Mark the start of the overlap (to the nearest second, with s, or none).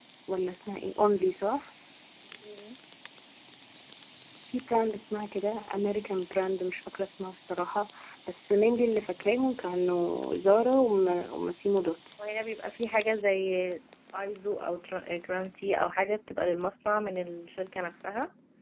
none